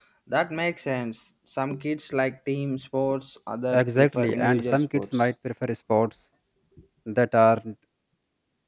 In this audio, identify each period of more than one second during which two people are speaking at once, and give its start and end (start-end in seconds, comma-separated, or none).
3.7-5.2